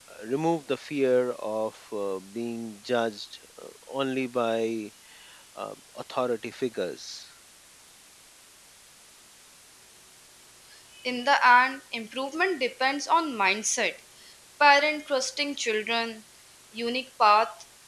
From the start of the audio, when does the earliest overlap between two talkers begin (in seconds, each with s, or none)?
none